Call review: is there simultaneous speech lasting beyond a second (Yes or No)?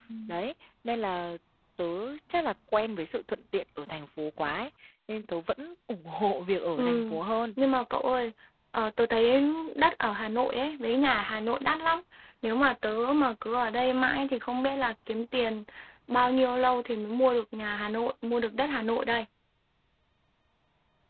No